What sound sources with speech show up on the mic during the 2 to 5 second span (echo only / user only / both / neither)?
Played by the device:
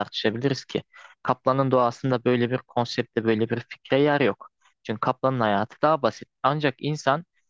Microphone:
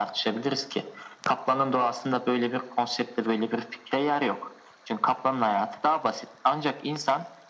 echo only